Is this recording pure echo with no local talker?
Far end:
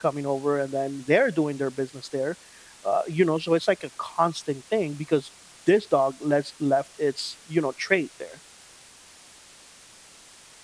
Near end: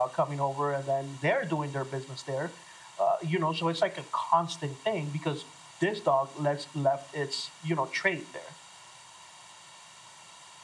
Yes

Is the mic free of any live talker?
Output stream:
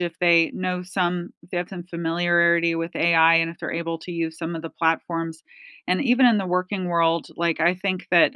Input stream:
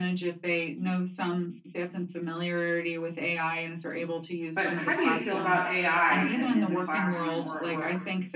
No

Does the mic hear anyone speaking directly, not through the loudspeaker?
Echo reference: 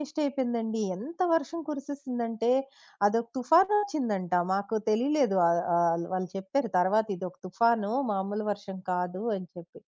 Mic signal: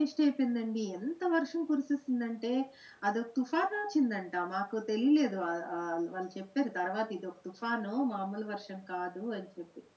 No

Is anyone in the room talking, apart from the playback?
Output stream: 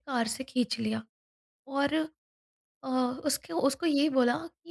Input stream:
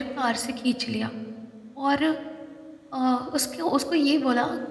No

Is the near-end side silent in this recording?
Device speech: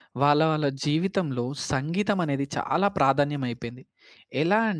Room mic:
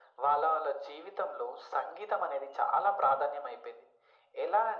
Yes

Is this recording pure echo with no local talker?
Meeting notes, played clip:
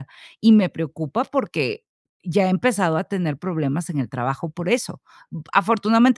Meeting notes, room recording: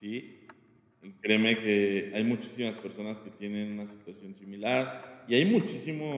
No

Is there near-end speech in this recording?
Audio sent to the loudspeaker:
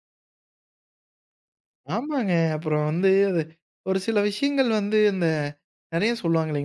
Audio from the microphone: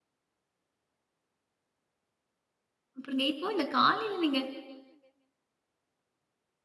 Yes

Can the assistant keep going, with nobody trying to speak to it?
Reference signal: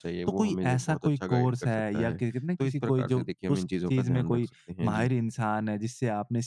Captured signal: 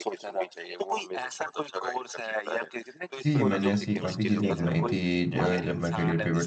No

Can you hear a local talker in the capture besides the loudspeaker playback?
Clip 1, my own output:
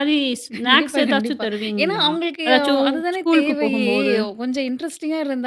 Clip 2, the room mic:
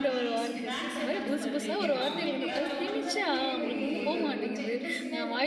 Yes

